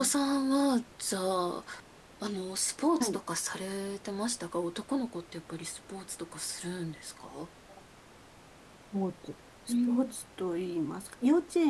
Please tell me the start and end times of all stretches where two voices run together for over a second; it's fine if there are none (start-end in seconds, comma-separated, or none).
none